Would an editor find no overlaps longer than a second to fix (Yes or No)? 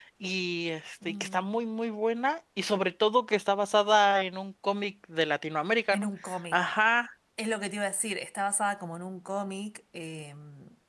Yes